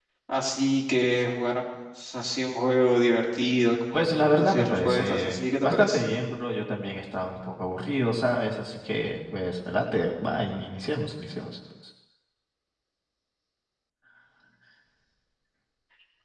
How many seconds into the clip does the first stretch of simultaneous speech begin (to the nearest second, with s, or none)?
4 s